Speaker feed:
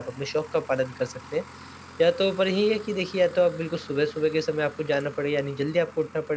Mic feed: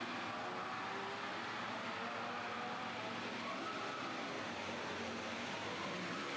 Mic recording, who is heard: neither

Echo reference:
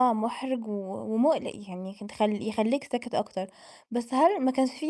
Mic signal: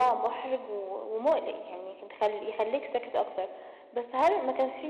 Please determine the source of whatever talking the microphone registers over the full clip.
echo only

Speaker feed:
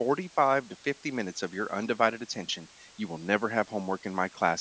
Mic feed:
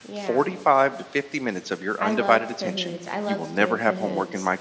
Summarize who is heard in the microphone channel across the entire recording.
both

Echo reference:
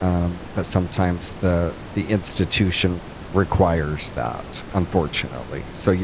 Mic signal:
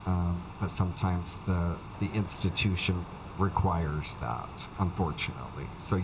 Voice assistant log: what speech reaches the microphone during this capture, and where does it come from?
echo only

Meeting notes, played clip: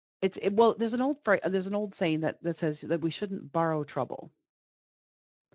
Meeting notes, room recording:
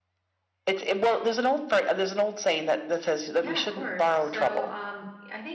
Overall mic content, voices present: both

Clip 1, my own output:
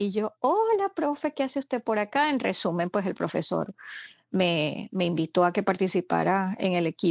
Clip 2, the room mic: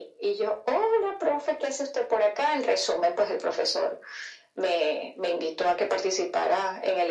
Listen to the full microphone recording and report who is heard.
echo only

